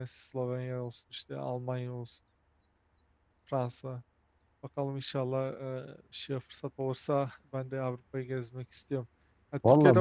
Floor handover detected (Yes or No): No